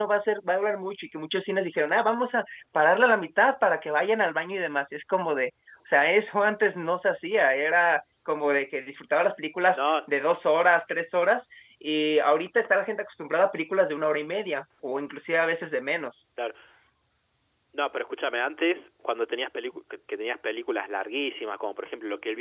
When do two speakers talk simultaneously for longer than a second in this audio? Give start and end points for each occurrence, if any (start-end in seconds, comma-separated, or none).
none